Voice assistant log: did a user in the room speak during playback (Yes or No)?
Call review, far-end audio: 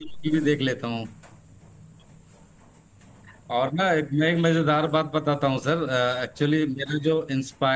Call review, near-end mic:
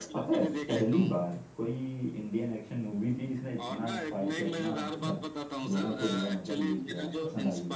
Yes